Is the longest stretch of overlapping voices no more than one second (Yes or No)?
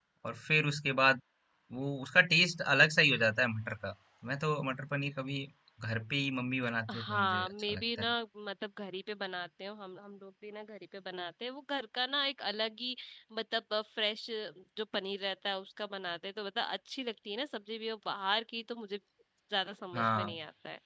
No